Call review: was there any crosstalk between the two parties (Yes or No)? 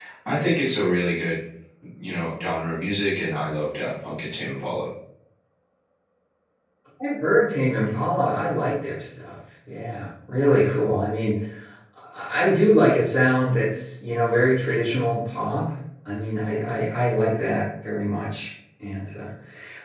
No